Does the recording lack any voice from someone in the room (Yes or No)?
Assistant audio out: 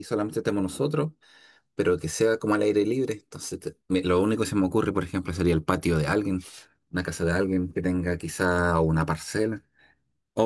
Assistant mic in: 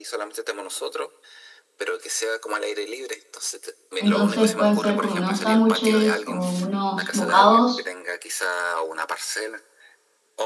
No